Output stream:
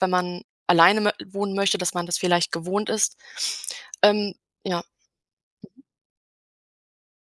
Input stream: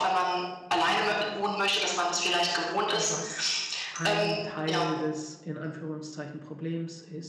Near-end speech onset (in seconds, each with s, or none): 2.9 s